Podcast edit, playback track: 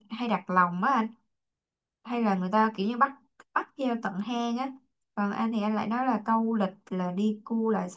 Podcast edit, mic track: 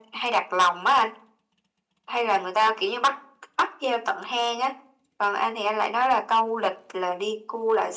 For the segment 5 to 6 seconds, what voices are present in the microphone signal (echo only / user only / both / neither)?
echo only